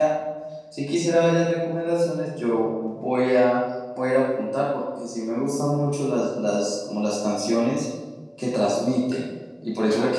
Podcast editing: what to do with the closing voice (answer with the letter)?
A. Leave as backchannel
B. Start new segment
A